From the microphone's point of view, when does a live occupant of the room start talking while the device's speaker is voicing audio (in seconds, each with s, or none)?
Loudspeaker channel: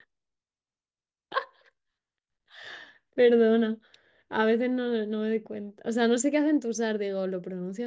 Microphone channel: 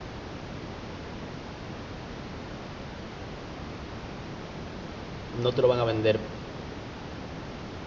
5.3 s